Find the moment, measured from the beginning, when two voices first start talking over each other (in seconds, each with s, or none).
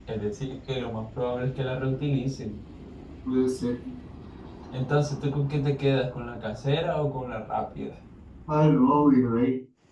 none